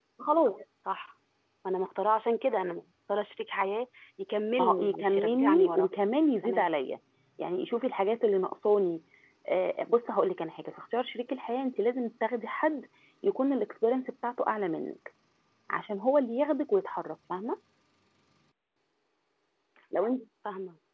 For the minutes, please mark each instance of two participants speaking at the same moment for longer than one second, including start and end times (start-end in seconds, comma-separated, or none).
4.6-5.9